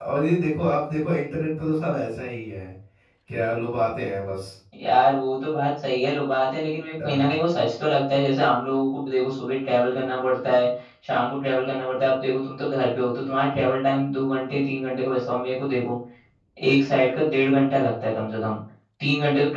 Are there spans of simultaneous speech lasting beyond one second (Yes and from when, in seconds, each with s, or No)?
No